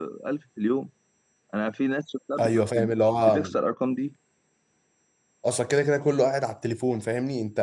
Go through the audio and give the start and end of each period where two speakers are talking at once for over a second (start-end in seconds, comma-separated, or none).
none